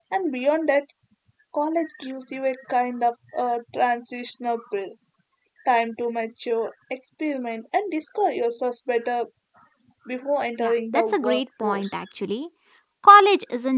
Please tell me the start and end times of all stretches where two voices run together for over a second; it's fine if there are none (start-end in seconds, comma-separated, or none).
10.6-11.9